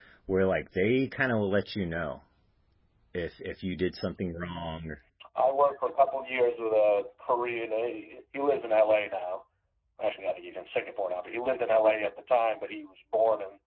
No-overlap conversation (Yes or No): Yes